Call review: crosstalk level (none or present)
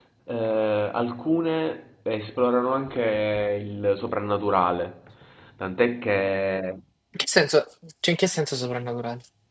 none